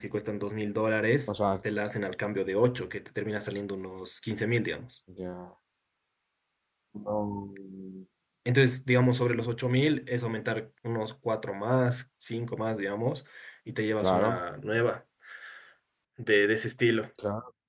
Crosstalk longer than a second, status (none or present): none